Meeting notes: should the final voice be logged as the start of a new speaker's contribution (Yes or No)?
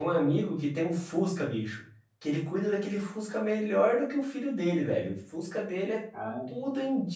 No